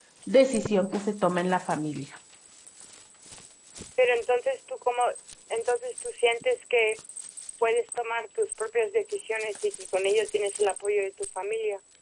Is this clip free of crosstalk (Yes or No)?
Yes